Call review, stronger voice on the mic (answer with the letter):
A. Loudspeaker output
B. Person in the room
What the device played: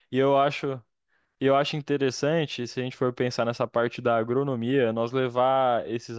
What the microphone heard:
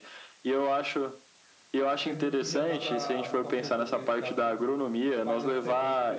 A